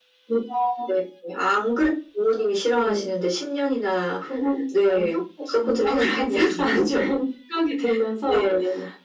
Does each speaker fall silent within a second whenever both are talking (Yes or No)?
No